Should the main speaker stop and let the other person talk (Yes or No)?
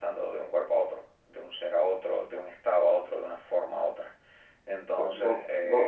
Yes